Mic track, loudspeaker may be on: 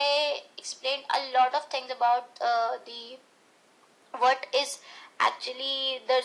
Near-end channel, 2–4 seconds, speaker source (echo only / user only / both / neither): echo only